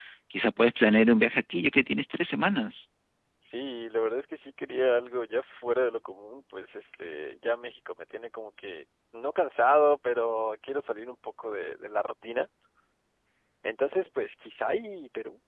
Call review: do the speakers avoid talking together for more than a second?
Yes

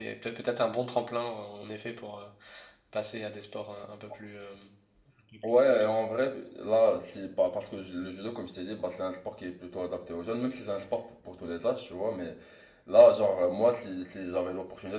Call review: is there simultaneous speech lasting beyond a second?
No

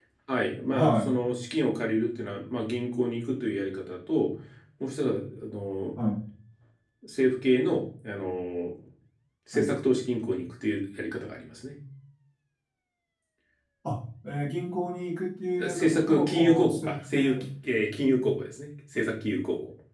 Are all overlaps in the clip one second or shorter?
No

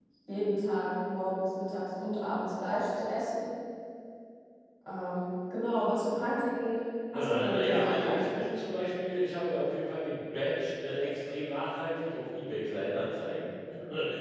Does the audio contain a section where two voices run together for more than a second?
Yes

